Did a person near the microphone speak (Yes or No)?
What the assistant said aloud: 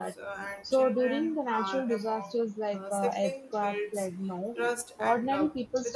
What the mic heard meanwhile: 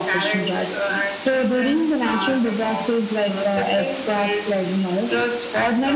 No